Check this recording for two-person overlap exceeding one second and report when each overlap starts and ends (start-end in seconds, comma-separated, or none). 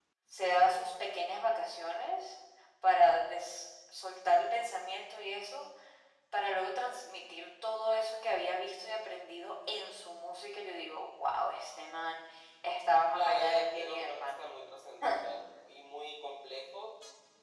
13.1-14.4